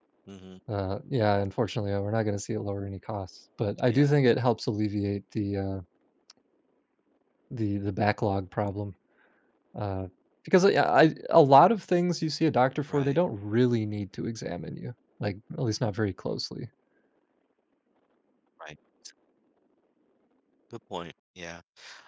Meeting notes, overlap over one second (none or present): none